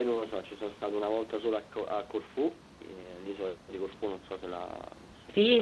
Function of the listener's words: taking over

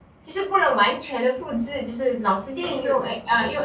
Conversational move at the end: listening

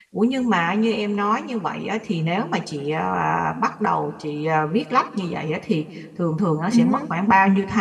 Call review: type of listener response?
listening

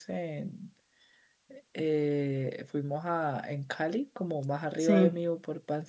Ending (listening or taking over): listening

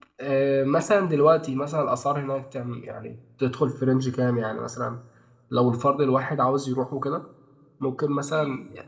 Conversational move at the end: listening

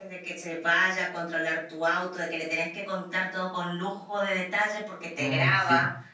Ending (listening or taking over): listening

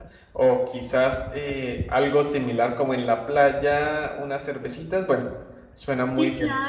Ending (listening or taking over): taking over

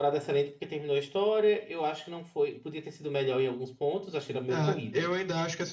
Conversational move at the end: taking over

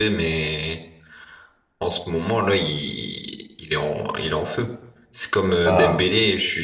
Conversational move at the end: listening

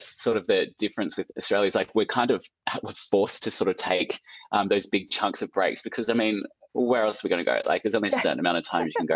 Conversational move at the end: listening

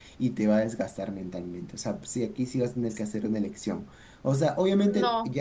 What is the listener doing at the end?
listening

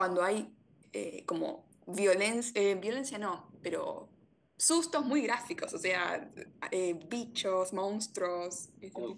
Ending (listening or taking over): taking over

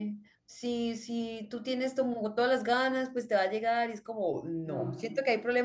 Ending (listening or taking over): listening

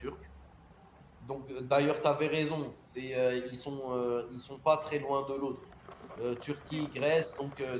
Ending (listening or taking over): listening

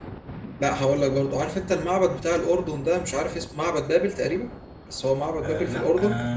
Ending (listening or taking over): taking over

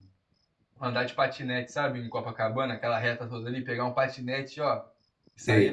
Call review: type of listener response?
taking over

